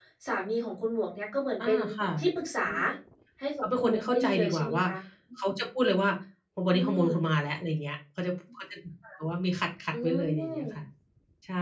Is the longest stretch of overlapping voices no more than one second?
No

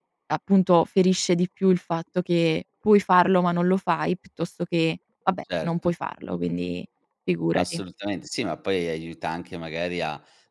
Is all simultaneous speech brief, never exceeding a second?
Yes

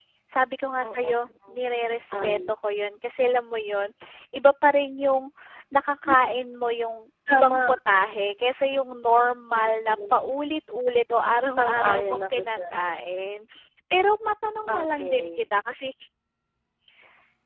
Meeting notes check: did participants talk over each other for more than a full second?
Yes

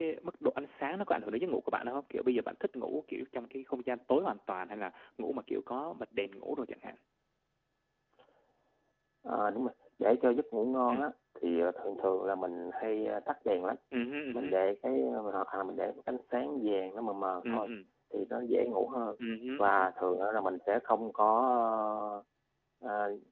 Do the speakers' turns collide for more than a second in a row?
No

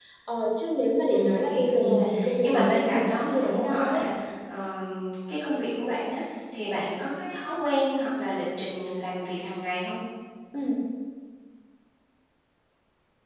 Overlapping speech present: Yes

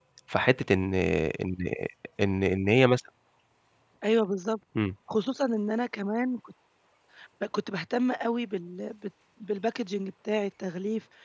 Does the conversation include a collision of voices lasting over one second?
No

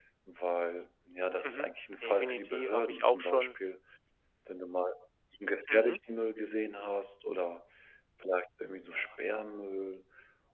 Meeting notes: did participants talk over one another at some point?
Yes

